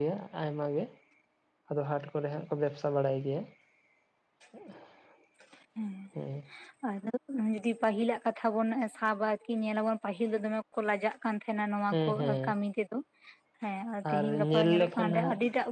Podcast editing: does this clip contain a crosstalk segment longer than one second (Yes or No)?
Yes